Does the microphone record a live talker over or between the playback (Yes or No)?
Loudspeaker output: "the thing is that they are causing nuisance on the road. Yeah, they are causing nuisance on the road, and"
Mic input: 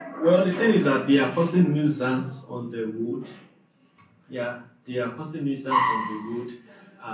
No